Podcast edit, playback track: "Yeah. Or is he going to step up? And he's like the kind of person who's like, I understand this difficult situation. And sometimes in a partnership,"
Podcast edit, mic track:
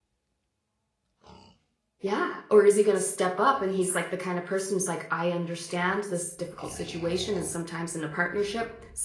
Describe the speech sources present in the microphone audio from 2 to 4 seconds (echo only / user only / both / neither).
echo only